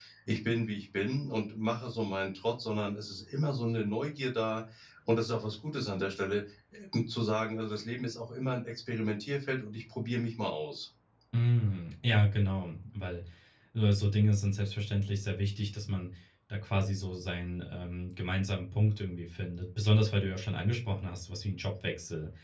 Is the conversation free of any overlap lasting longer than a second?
Yes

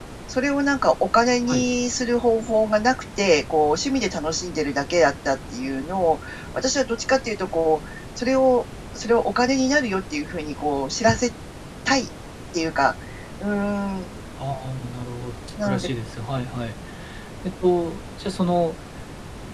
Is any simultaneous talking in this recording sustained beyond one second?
No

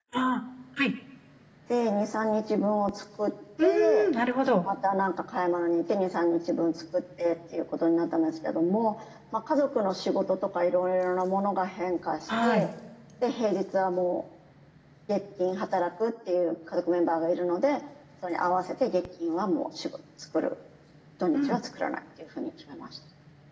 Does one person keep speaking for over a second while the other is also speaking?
No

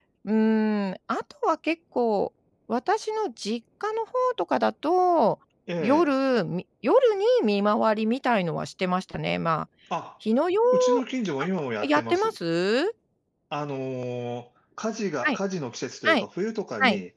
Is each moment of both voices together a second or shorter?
Yes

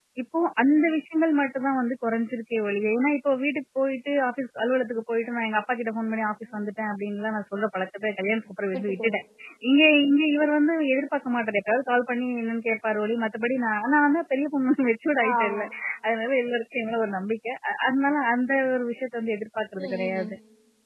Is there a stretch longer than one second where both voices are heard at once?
No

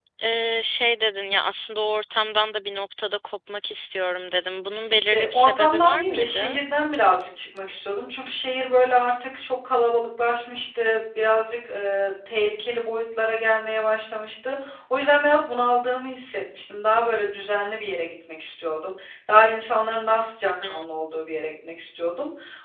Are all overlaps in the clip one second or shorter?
No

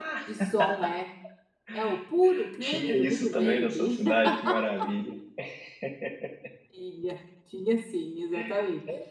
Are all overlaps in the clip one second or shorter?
No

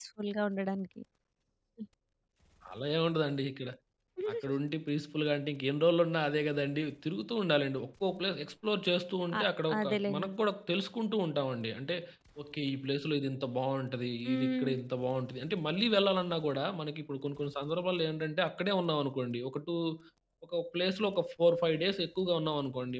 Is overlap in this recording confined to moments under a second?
Yes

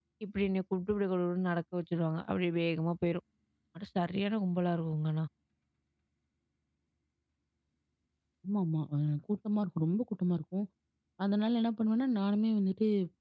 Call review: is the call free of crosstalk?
Yes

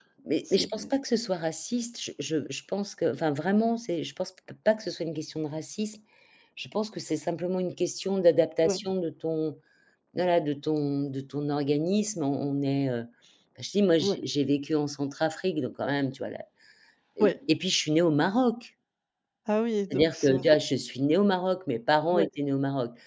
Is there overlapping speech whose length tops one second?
No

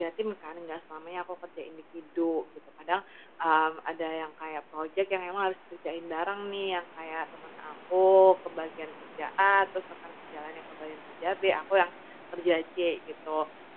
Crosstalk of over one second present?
No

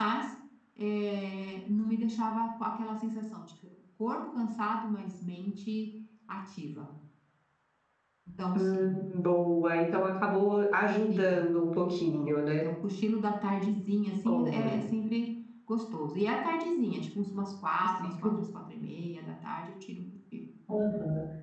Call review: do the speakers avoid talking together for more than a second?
Yes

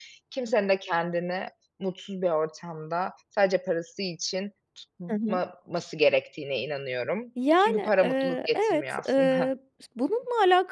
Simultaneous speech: Yes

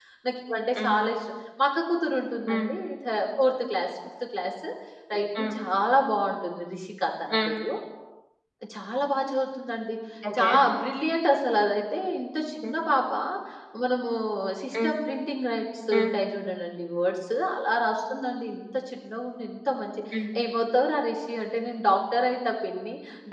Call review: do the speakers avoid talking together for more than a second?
Yes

